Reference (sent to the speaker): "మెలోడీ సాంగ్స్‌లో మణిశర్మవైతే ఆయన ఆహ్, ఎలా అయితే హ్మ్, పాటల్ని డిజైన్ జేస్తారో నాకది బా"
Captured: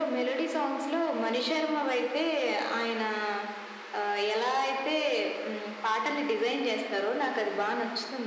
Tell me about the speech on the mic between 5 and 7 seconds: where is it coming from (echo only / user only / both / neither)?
echo only